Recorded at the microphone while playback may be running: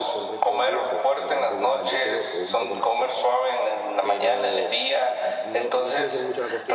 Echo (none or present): present